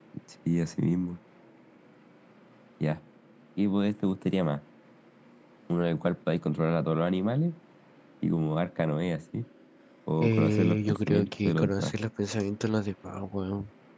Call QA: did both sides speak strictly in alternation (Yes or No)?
No